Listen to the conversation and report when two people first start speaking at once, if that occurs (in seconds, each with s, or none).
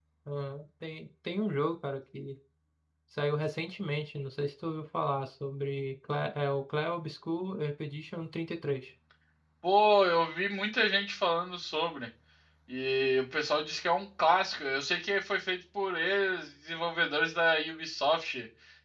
none